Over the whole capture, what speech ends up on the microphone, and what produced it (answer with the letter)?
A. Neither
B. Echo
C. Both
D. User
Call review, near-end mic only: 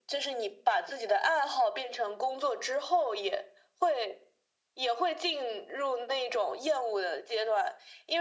B